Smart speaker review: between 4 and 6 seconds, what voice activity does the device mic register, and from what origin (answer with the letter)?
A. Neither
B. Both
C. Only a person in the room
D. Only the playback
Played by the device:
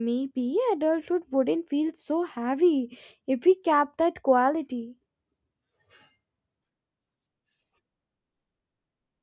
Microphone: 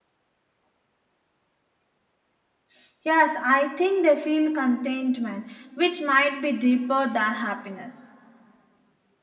C